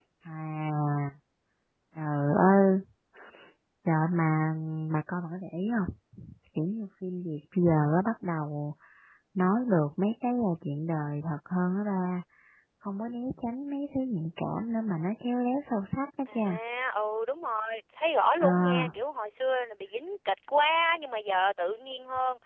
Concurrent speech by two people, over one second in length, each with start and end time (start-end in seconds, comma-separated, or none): none